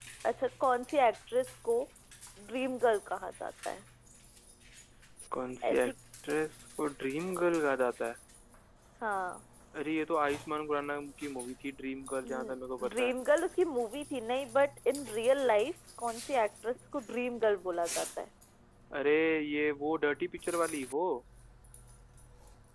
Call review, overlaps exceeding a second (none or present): none